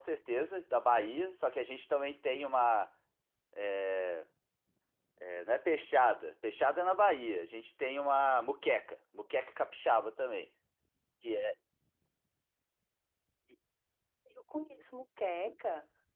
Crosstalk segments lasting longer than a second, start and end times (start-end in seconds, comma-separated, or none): none